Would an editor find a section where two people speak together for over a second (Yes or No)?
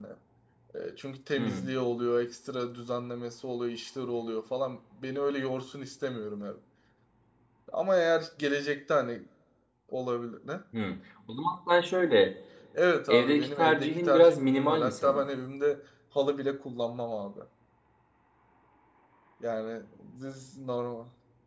Yes